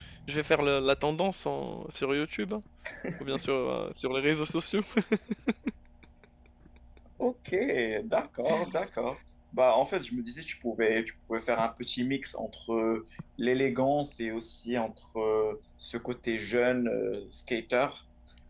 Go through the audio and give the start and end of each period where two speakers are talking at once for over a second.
none

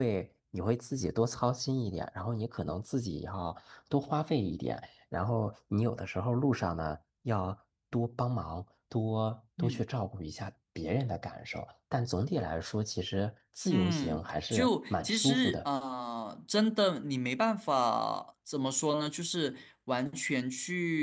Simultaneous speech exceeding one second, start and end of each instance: 13.7-15.6

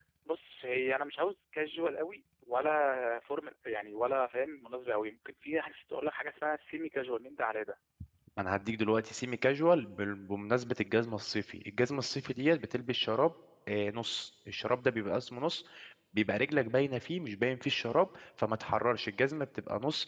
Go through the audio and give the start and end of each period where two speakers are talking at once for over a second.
none

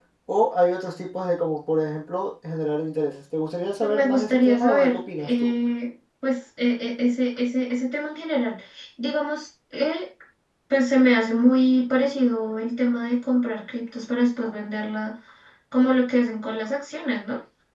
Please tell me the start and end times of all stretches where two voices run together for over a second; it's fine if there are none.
3.8-5.5

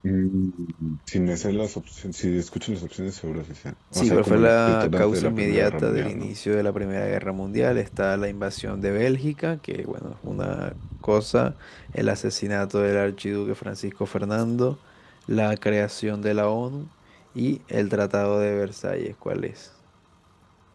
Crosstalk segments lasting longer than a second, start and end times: 4.0-6.3

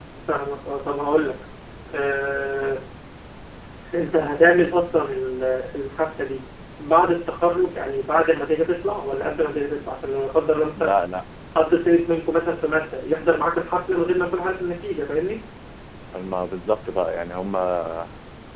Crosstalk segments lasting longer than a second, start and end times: none

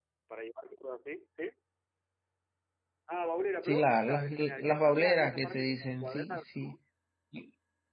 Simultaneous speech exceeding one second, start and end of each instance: 3.6-6.8

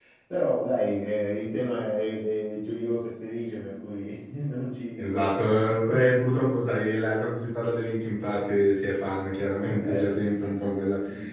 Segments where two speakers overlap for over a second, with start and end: none

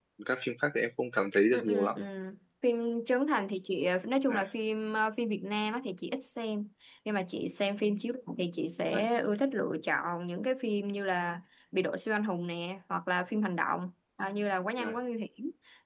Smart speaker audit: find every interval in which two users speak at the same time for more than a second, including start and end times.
none

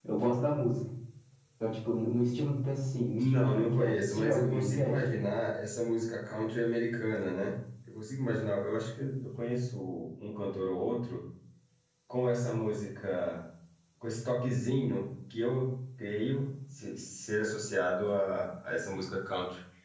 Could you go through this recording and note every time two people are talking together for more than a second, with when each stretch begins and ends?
3.2-5.0

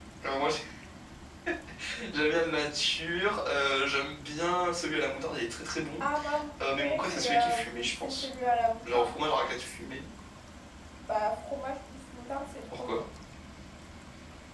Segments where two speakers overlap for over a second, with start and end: 6.6-8.3

